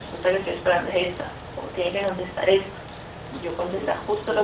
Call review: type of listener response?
listening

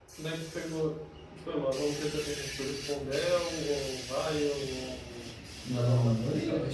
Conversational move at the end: taking over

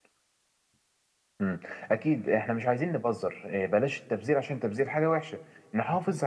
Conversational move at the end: listening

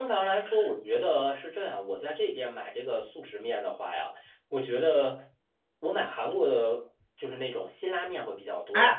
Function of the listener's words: listening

